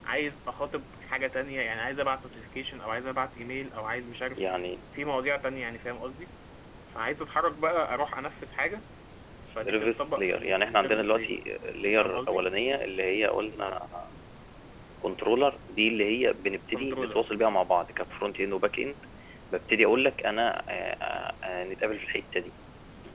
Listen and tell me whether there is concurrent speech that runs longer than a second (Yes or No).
Yes